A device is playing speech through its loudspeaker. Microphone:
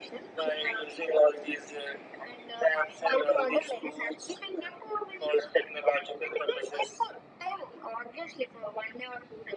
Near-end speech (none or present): none